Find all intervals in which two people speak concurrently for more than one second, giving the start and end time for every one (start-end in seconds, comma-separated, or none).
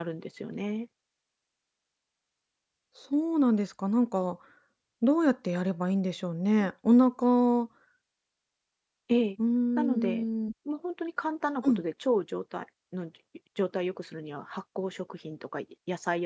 none